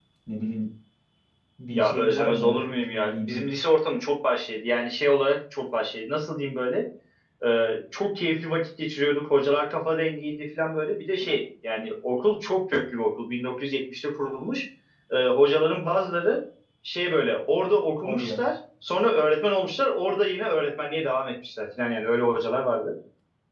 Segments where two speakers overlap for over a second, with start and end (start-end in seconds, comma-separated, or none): 1.7-3.4